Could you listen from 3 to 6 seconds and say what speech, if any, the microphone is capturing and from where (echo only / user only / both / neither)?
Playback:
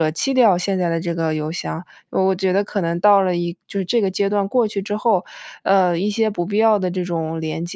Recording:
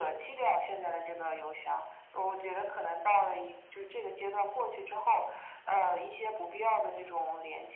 echo only